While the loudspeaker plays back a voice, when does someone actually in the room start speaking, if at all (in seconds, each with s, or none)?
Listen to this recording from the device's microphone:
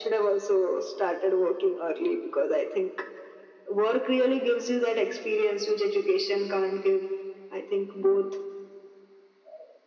none